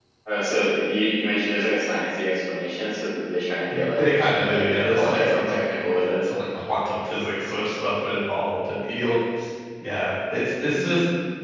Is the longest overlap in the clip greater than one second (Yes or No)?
Yes